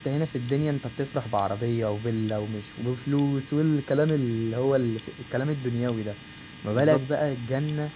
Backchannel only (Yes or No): Yes